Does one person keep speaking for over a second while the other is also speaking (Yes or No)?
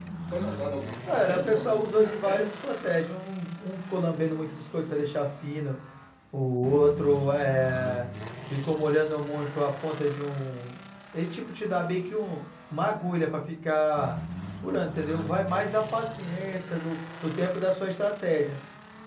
Yes